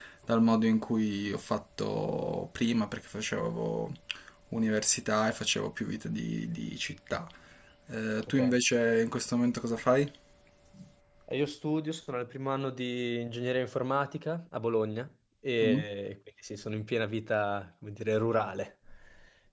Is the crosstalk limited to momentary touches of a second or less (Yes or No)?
Yes